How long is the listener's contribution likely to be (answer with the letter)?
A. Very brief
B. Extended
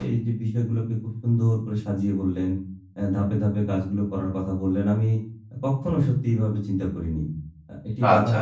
A